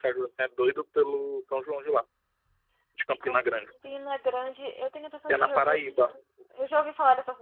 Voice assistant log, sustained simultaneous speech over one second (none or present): none